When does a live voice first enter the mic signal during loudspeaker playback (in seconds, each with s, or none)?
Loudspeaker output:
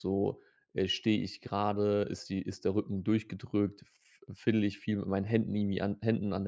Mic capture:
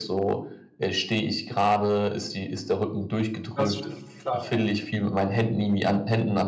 3.5 s